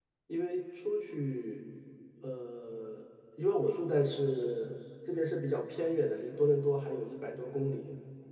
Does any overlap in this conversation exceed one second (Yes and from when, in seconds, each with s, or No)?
No